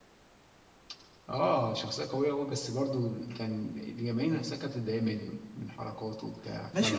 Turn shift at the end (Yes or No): Yes